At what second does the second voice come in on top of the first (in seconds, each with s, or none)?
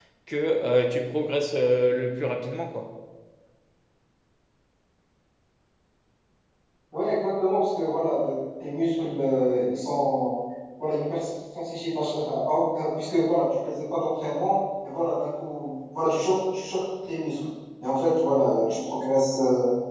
none